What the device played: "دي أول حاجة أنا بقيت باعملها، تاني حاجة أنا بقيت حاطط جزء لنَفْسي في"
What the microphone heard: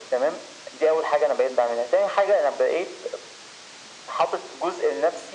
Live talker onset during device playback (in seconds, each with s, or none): none